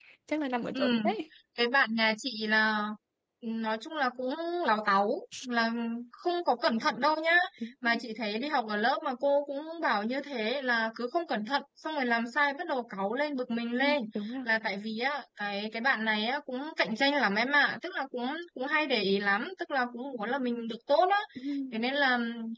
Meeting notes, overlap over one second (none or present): none